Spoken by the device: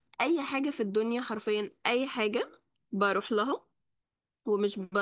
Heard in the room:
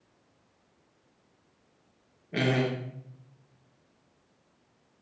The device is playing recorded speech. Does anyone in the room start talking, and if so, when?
2.3 s

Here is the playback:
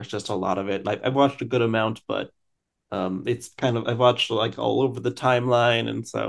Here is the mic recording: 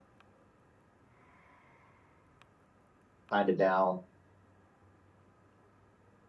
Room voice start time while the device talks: 3.3 s

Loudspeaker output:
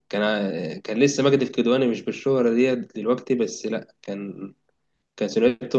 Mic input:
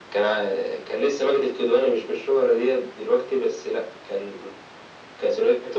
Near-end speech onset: none

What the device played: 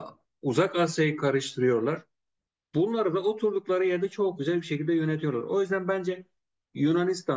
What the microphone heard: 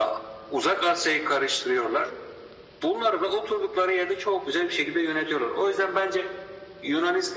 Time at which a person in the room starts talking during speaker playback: none

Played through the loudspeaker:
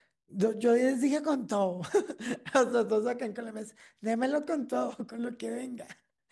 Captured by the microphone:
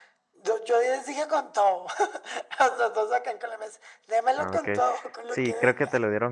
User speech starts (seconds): 4.3 s

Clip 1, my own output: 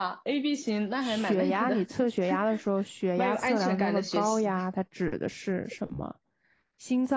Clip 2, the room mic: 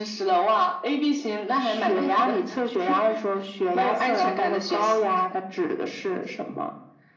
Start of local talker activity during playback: none

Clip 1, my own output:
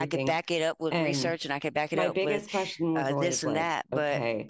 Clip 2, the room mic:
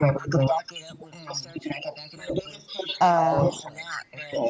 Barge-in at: 3.0 s

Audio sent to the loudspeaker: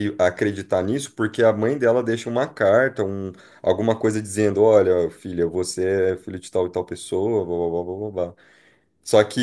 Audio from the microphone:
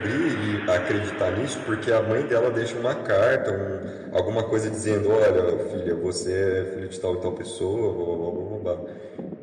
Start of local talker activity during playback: none

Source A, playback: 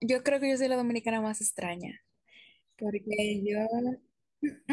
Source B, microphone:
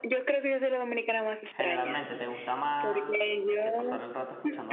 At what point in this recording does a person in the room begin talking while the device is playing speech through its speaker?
1.5 s

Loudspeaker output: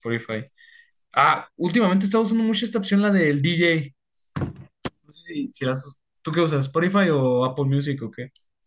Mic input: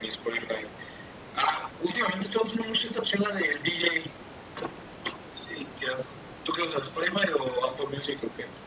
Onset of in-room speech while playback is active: none

